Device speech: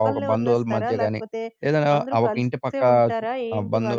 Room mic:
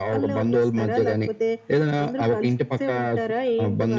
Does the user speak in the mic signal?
No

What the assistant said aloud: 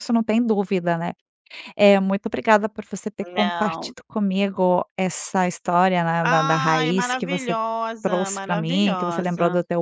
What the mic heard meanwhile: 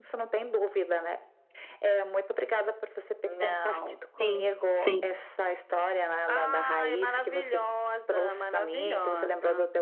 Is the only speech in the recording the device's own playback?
No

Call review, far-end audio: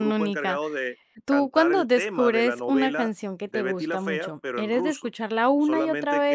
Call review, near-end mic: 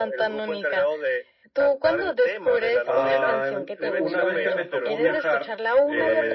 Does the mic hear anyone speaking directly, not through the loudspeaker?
Yes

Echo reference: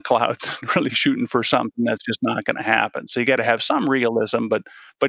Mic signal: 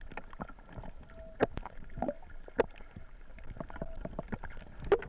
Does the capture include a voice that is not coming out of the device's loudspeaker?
No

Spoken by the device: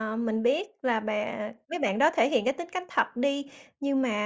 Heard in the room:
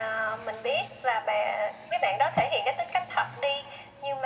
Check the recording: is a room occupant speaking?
No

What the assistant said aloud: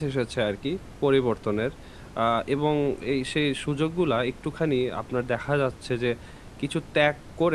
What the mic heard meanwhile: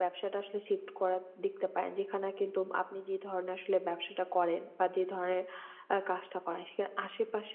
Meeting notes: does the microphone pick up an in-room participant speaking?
Yes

